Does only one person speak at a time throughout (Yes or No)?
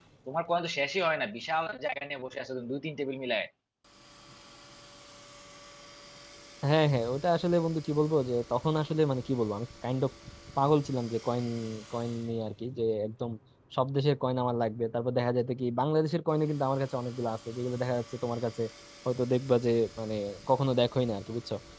Yes